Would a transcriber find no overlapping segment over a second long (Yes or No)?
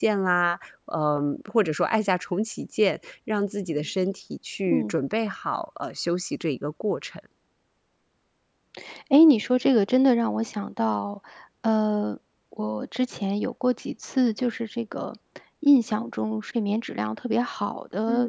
Yes